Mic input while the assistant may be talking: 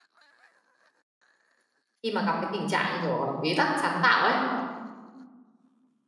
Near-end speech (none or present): present